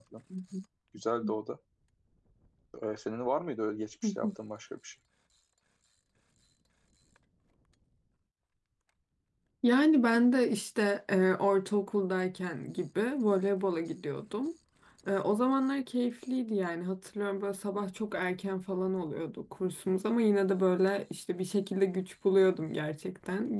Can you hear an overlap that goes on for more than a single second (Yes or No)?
No